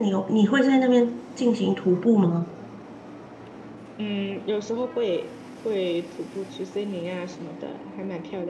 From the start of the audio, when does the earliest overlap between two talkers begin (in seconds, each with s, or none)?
none